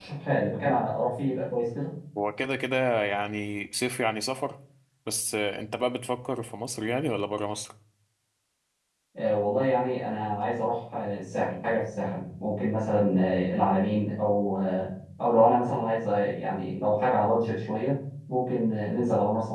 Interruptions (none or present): none